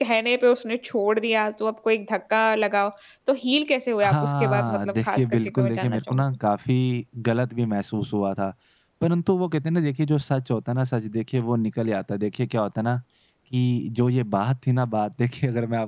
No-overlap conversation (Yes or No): No